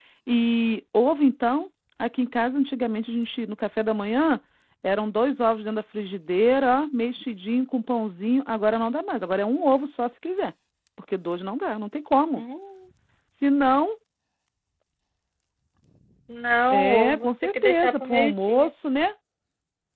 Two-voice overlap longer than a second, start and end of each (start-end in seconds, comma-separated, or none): 16.7-18.7